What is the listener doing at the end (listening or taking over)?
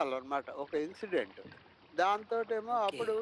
listening